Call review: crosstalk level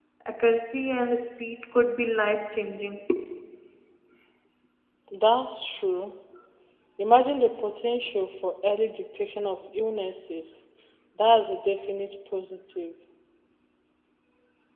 none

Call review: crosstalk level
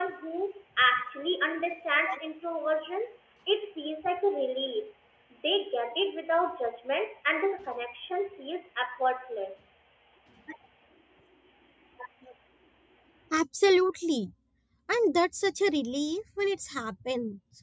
none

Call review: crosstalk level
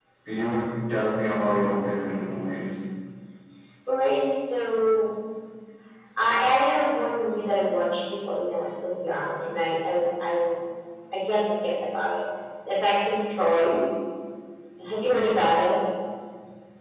none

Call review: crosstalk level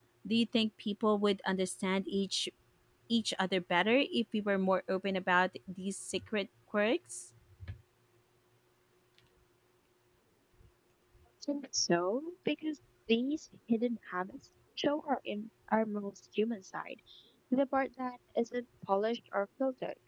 none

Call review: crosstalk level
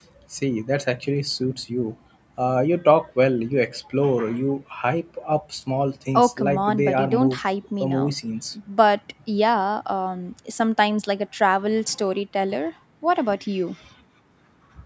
present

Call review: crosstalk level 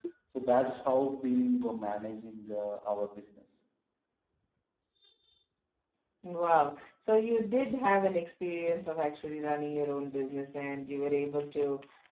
none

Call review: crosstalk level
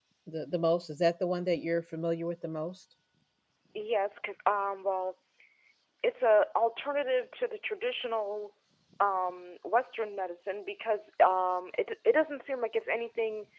none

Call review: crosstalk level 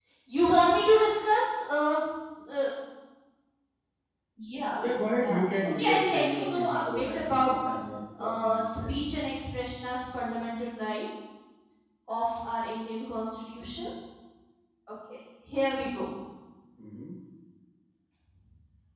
present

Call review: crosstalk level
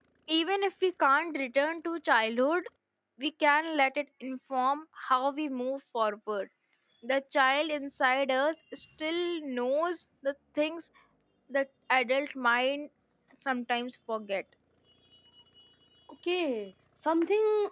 none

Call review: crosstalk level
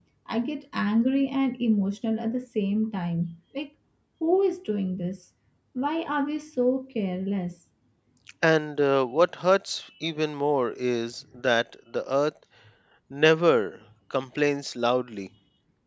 none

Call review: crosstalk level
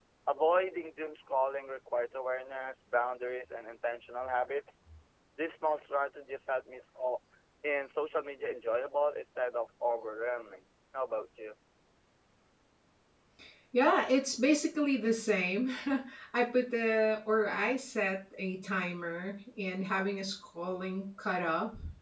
none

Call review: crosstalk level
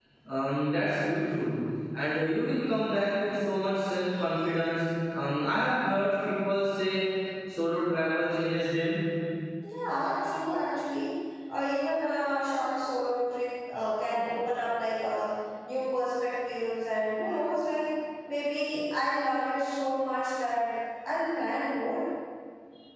none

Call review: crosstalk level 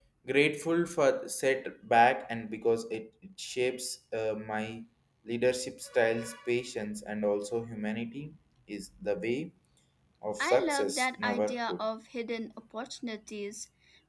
present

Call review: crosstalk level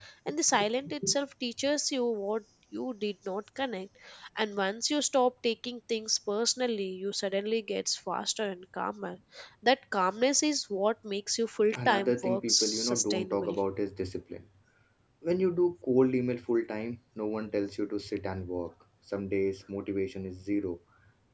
present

